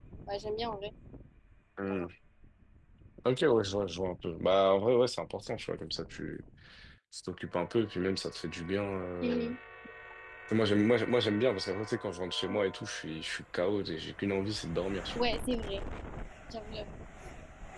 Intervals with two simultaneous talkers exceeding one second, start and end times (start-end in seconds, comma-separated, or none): none